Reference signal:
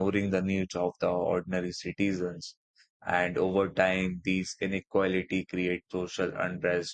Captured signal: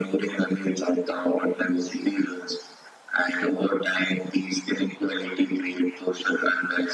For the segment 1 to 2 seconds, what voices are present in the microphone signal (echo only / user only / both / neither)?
echo only